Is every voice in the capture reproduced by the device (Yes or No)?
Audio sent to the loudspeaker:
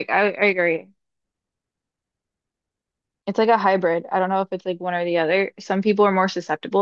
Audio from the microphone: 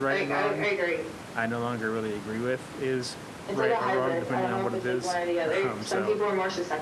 No